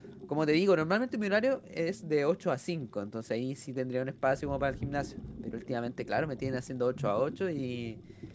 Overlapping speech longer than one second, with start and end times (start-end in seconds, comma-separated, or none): none